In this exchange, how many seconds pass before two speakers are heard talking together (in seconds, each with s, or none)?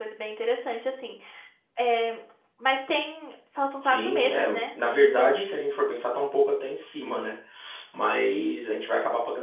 3.8 s